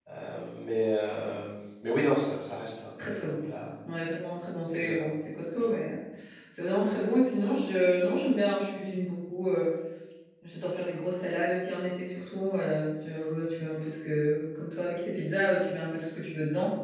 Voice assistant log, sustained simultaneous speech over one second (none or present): none